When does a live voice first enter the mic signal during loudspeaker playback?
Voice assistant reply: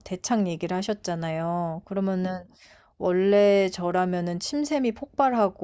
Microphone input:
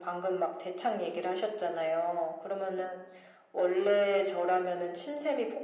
none

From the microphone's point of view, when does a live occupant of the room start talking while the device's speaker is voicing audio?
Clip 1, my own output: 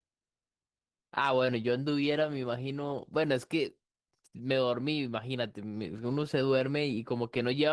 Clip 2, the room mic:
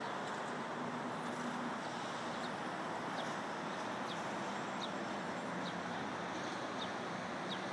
none

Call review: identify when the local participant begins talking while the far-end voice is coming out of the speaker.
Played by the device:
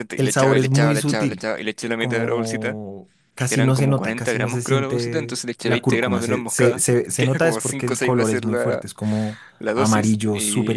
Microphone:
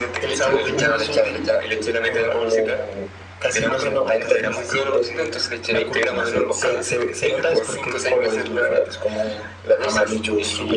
none

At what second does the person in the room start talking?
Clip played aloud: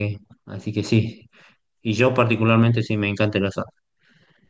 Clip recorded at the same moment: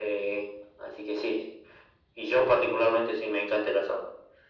none

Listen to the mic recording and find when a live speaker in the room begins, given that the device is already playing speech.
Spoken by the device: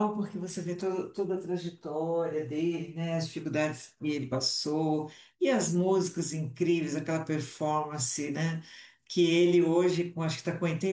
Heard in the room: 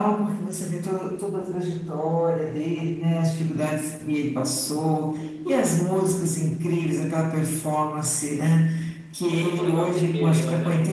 9.3 s

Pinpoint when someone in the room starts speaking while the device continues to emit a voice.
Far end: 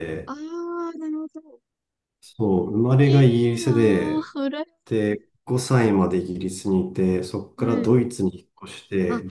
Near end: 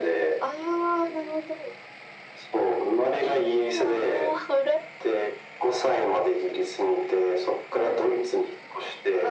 none

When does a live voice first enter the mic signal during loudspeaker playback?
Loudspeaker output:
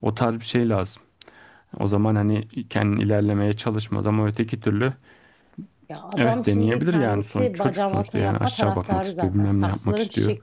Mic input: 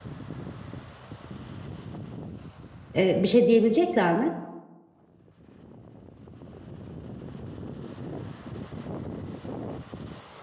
3.0 s

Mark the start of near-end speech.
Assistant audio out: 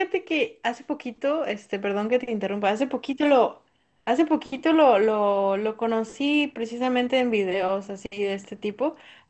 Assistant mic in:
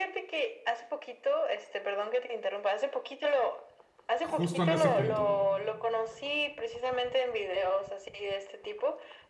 4.2 s

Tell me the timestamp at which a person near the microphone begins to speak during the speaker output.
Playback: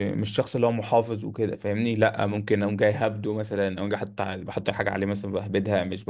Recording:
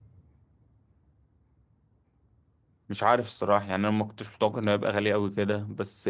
2.9 s

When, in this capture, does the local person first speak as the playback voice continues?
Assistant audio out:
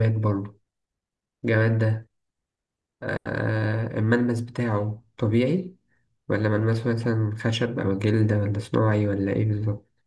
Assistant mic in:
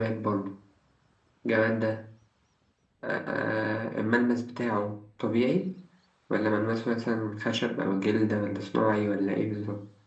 none

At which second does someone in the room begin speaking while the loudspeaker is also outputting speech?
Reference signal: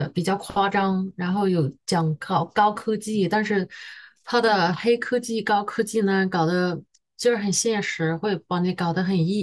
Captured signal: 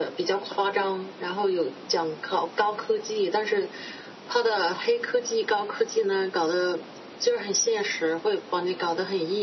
none

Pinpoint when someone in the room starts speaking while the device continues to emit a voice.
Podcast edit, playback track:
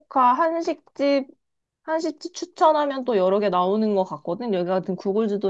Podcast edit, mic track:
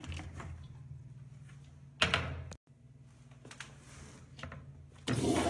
none

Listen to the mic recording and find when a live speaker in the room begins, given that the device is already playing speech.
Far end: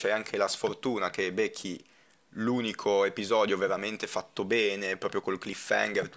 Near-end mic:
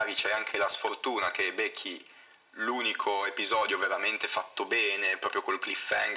none

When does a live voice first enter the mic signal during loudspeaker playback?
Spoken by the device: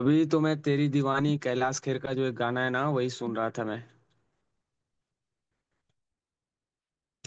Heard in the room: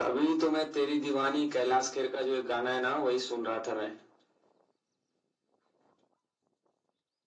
none

